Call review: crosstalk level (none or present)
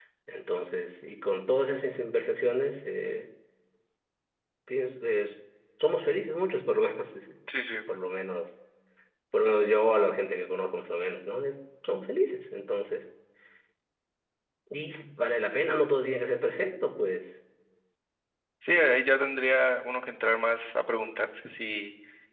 none